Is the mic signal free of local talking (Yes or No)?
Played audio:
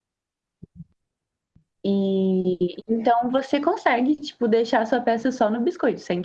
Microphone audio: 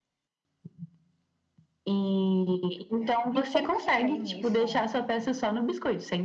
No